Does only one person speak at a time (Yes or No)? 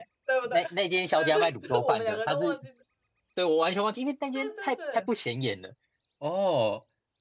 No